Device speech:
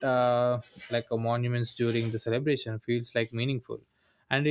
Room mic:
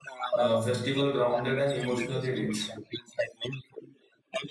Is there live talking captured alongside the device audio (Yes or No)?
Yes